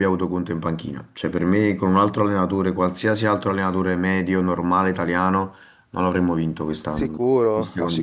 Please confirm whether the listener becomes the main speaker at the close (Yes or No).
Yes